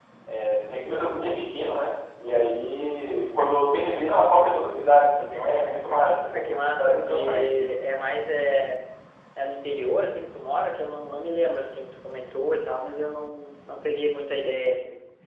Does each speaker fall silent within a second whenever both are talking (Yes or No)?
No